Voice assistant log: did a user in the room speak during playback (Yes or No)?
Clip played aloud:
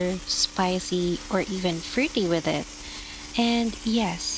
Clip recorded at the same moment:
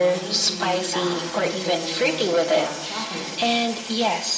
Yes